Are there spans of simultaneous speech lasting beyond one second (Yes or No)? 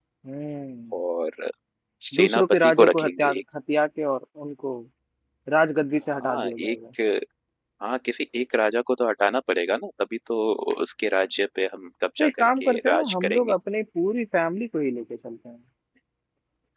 Yes